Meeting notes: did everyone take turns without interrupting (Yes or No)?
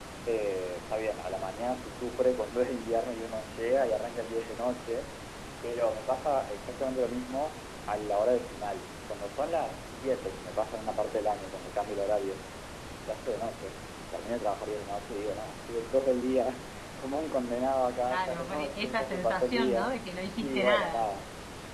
No